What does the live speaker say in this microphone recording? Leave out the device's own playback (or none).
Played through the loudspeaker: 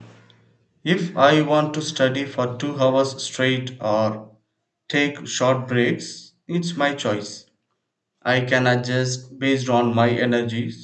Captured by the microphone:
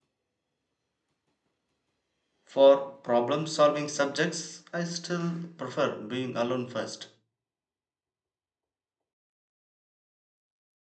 For problem solving subjects, I still prefer doing alone first.